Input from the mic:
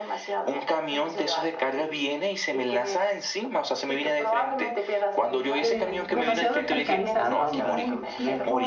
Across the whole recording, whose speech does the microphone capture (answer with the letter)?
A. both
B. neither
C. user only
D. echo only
A